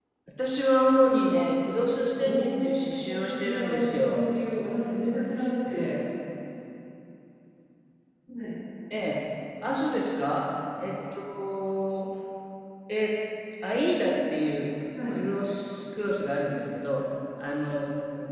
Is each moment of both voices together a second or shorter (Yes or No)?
No